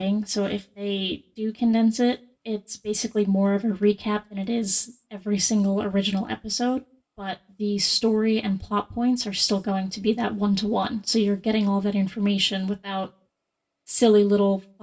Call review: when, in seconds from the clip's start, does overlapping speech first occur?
none

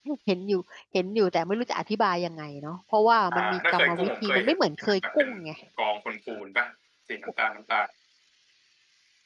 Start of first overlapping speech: 3.3 s

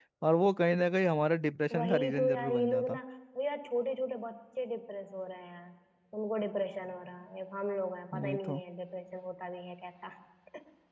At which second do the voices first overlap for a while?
1.7 s

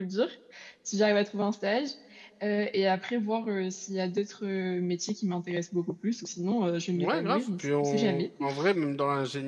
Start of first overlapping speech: 7.0 s

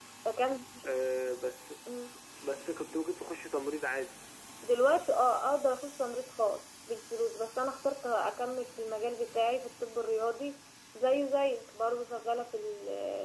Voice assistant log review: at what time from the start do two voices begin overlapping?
none

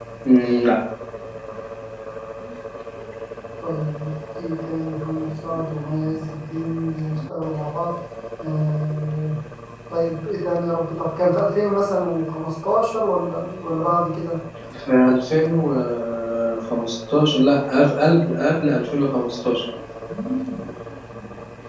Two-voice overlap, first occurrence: none

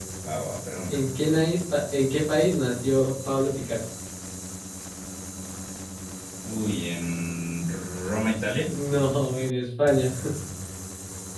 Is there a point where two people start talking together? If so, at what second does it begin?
none

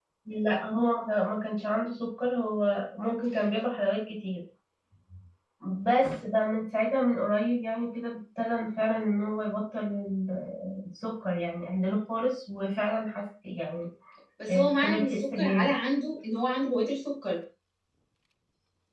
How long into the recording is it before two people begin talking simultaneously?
14.5 s

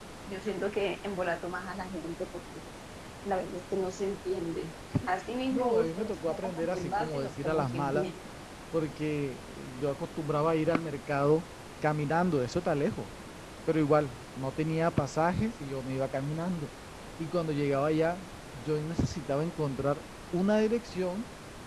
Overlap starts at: 5.5 s

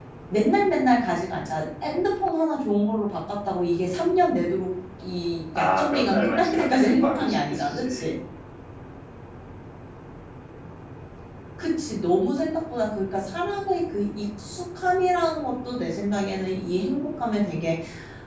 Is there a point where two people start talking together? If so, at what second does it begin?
5.5 s

